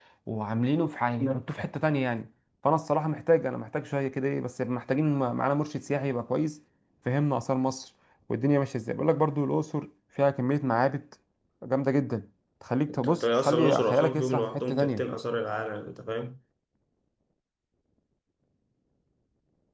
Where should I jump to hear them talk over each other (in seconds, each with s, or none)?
12.9 s